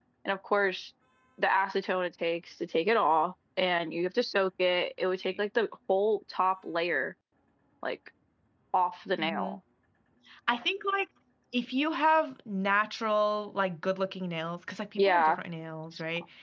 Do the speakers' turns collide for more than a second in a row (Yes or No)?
No